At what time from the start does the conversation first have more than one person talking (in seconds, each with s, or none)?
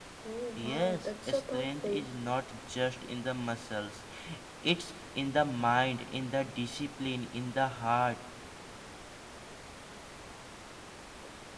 0.6 s